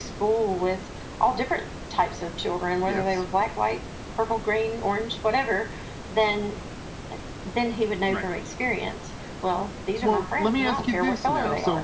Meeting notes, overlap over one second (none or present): present